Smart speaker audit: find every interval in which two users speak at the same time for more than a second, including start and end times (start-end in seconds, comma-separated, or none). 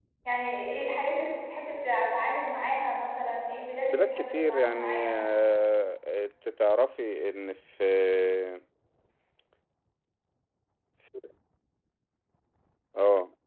3.9-5.2